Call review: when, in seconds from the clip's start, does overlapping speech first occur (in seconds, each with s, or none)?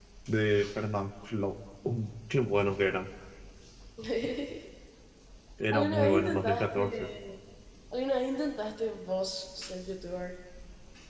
5.7 s